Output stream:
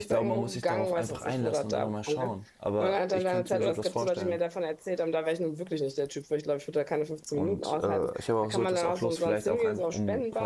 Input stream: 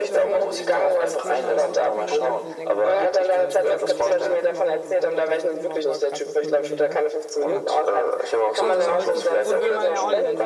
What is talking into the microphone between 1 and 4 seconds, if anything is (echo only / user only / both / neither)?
both